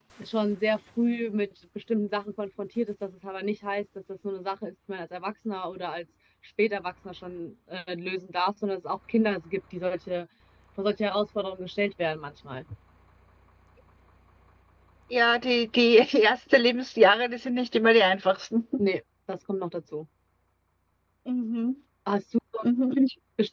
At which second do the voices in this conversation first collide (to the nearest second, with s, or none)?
none